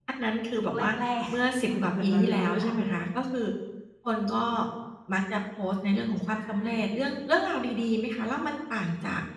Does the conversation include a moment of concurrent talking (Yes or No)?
Yes